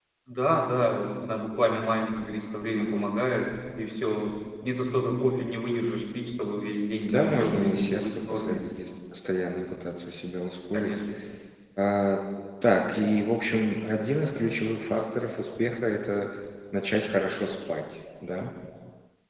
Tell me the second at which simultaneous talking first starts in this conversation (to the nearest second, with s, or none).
7 s